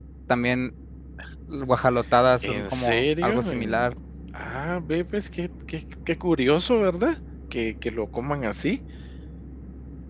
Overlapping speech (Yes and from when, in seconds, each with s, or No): Yes, from 2.4 s